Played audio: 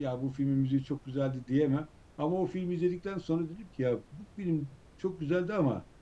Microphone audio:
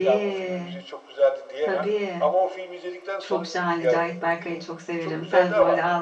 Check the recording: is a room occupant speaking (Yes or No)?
Yes